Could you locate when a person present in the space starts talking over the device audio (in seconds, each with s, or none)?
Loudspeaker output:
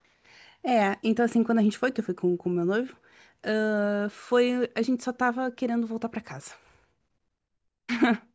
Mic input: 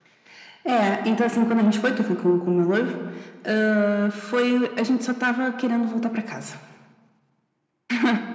none